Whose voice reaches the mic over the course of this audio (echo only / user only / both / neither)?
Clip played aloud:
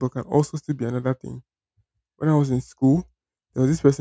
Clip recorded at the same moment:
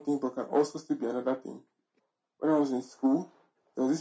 echo only